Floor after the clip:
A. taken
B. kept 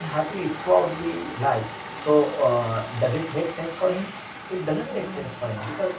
B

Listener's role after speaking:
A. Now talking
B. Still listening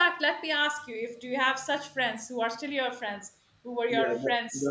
A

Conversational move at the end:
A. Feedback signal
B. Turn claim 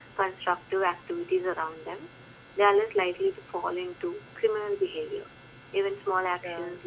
A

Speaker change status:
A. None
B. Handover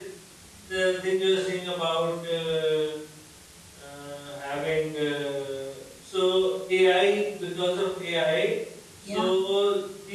A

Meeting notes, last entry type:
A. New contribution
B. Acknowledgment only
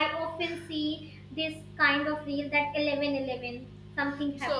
A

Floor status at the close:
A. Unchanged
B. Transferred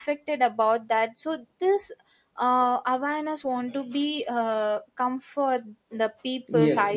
B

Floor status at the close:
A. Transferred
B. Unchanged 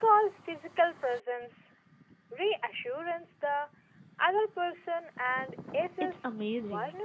A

